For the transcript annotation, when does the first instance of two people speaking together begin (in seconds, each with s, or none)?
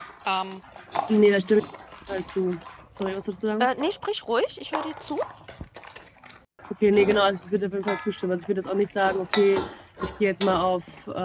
none